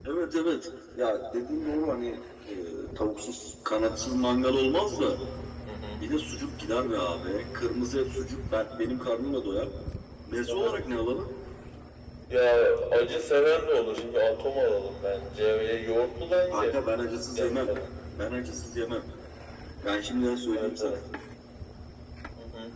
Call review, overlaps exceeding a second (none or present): none